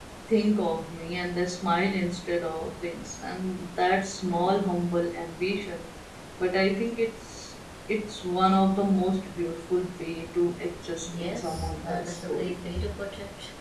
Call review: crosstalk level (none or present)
present